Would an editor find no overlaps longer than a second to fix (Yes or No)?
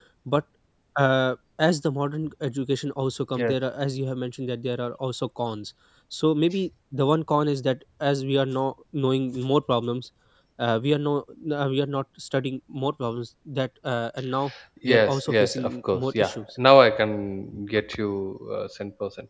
No